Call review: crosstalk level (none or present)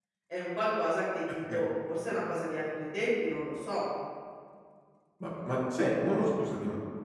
none